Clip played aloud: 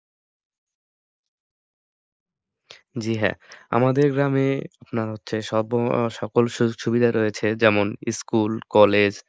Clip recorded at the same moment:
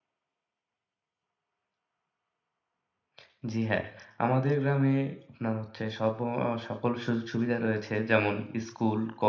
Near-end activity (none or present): none